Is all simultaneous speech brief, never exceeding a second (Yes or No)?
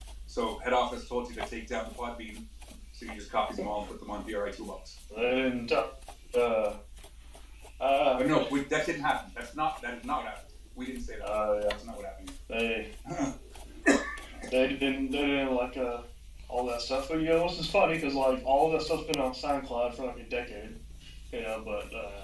Yes